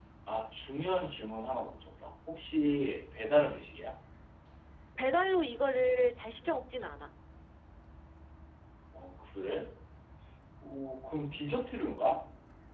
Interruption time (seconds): none

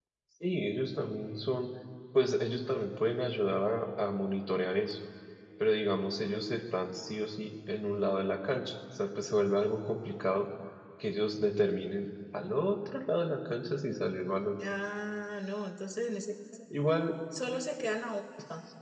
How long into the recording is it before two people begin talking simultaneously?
none

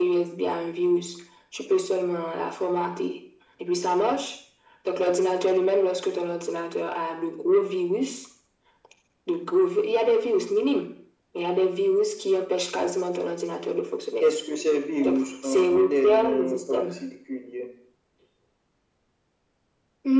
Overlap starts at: 15.0 s

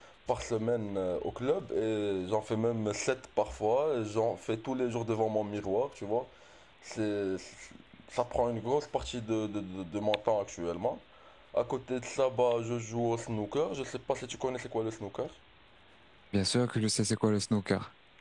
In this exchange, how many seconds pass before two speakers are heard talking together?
none

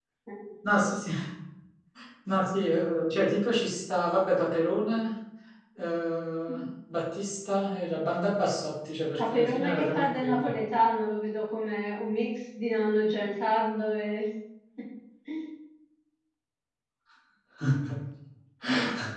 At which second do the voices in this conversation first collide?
9.2 s

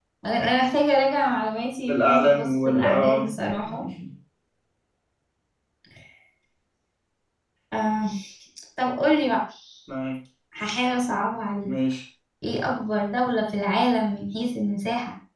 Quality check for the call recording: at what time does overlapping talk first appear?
1.9 s

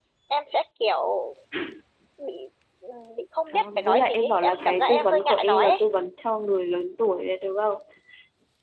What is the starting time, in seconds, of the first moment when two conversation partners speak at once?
3.5 s

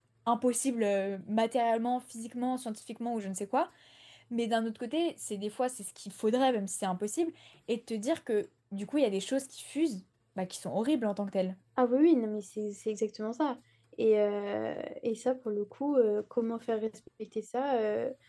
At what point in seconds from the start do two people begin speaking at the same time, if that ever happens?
none

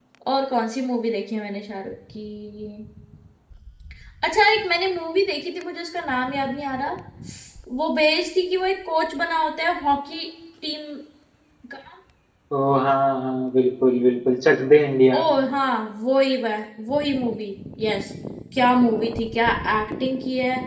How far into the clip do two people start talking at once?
none

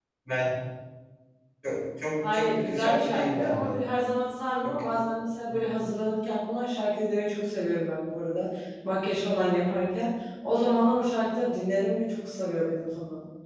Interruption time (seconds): 2.3 s

